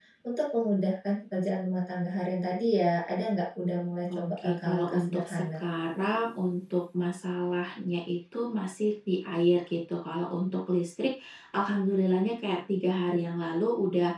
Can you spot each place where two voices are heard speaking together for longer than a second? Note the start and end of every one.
4.1-5.6

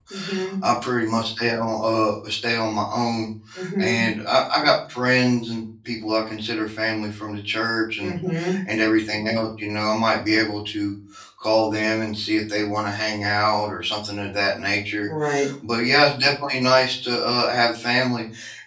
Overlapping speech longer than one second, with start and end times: none

